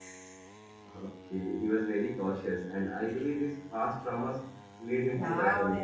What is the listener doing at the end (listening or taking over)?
taking over